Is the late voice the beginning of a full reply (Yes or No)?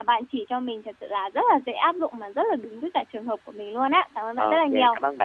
Yes